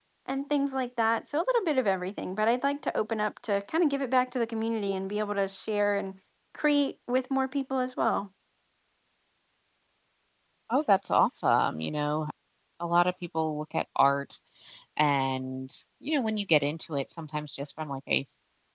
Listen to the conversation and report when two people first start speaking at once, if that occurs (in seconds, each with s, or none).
none